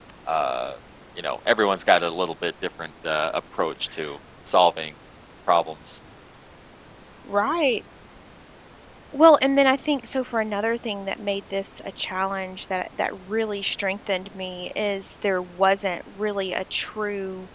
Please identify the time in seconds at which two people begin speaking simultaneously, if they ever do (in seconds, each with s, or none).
none